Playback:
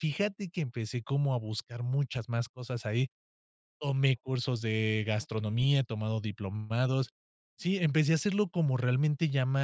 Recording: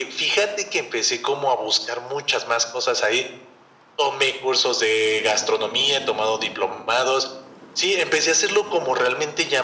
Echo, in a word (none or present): present